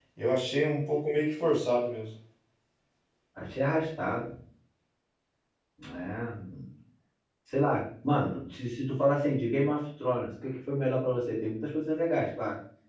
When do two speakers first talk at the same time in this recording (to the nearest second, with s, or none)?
none